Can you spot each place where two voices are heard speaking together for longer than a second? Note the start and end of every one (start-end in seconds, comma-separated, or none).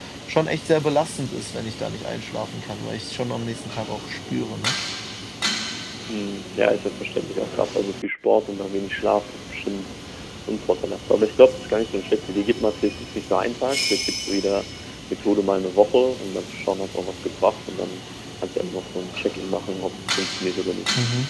none